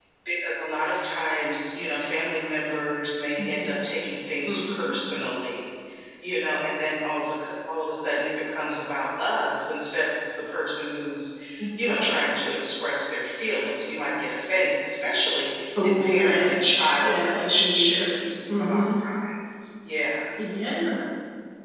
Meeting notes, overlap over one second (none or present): present